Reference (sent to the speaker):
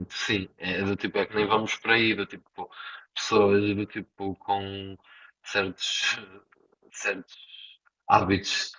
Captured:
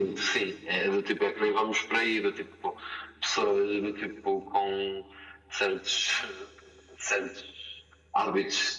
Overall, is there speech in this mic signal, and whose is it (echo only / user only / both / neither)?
echo only